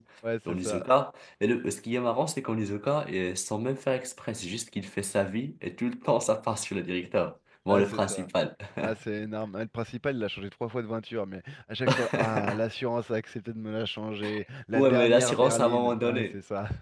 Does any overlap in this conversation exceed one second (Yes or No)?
Yes